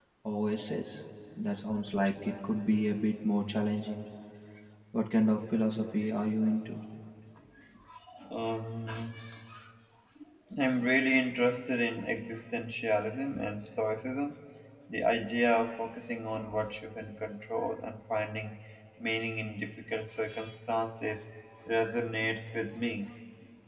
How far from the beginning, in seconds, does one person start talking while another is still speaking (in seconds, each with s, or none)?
none